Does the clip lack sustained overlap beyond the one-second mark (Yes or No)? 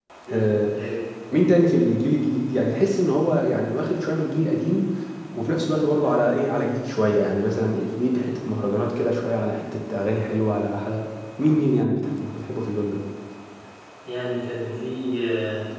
Yes